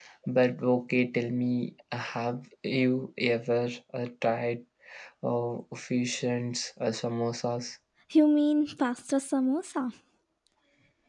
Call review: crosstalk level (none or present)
none